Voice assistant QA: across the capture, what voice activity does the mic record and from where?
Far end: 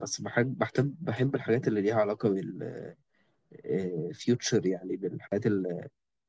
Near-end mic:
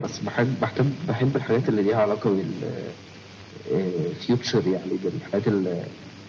echo only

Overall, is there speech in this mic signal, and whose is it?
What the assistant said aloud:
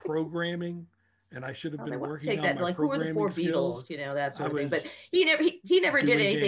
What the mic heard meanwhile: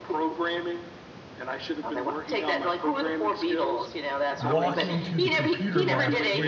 both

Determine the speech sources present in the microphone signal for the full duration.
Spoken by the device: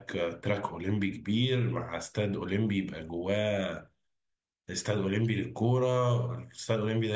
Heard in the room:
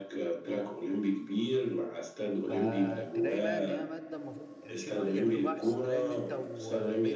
both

